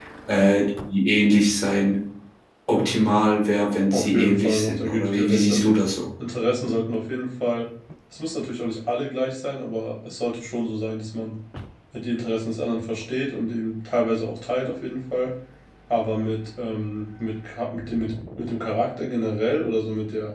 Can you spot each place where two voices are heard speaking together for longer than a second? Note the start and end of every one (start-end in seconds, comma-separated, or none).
3.9-5.8